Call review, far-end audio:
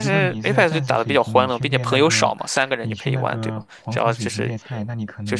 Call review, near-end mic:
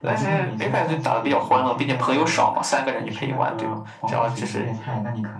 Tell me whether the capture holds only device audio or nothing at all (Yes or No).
Yes